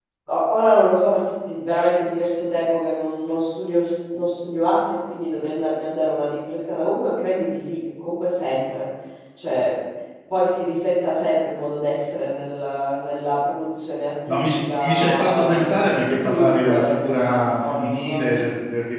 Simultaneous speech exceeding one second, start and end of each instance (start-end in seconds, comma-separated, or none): 14.3-18.5